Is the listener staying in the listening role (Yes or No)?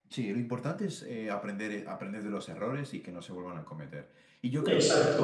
Yes